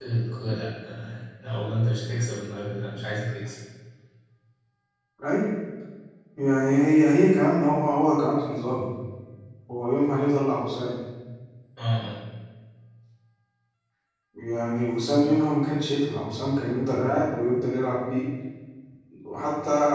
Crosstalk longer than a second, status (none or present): none